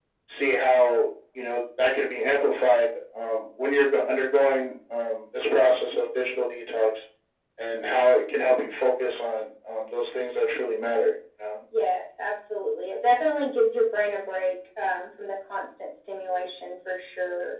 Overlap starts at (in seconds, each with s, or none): none